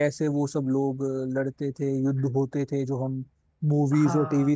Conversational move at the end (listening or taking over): taking over